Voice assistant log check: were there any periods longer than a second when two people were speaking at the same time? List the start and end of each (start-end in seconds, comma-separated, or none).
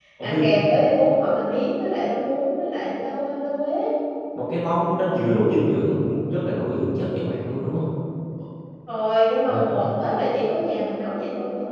none